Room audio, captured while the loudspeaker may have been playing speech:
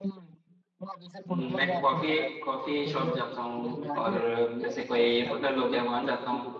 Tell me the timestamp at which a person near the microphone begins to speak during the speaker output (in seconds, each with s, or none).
1.3 s